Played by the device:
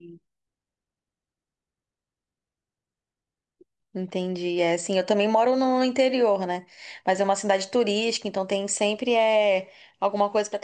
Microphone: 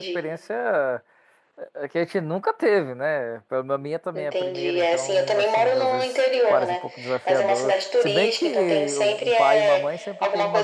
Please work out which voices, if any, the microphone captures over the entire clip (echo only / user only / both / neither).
both